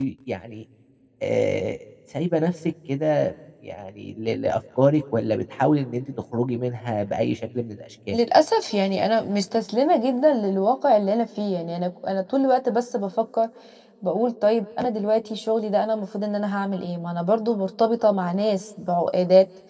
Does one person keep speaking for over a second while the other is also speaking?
No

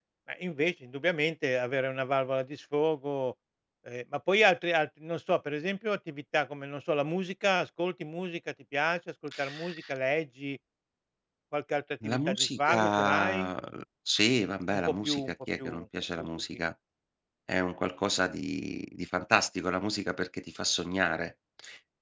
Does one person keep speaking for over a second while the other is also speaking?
Yes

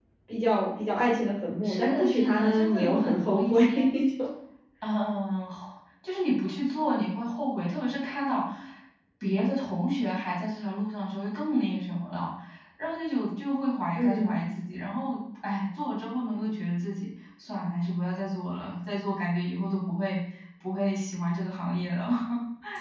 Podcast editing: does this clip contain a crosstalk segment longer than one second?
Yes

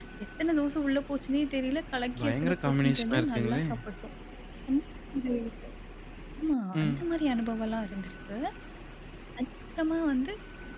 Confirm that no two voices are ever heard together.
No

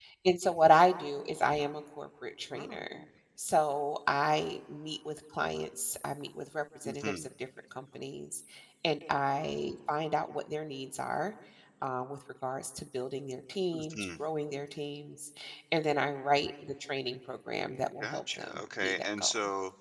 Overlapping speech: Yes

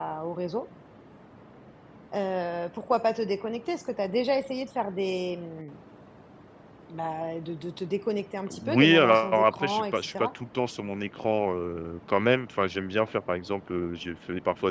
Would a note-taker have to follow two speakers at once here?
Yes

